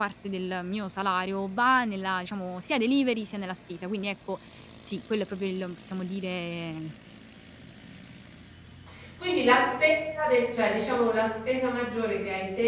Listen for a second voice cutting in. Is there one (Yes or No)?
No